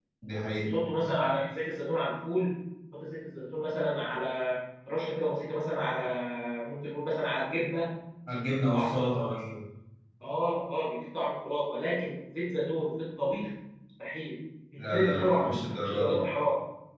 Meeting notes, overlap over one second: present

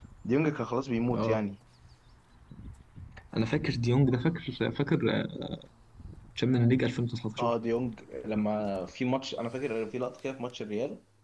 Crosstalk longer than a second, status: none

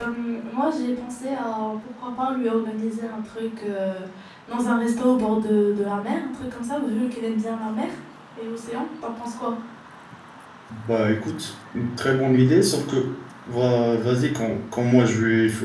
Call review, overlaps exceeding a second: none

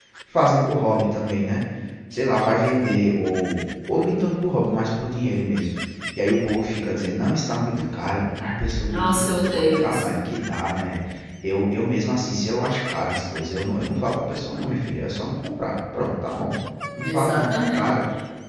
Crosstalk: present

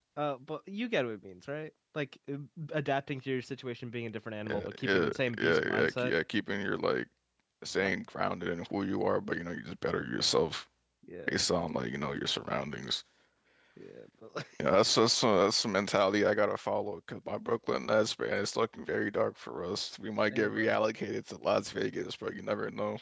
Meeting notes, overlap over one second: present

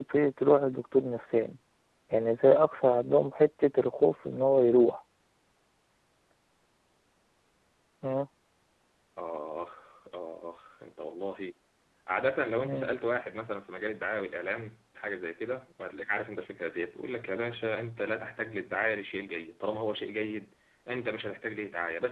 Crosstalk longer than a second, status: none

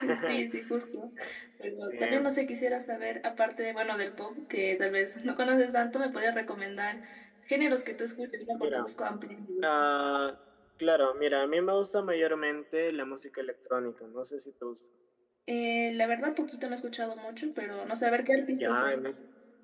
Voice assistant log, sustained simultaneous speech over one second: none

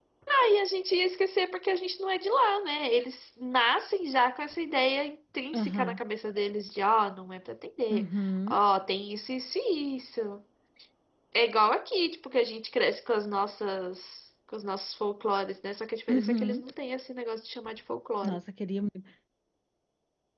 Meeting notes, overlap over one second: none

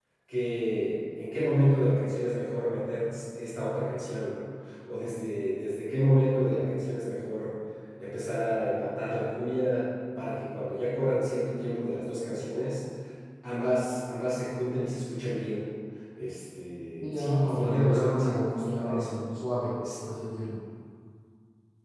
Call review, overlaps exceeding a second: present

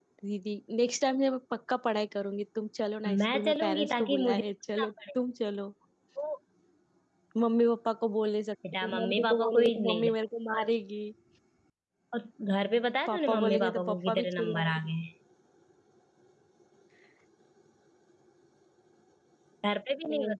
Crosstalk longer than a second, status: present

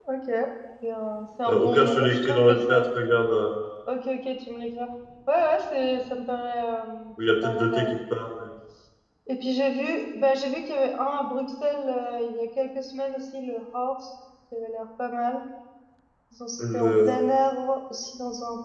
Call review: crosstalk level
present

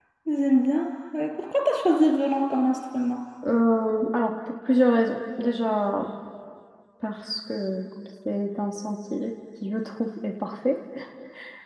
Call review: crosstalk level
none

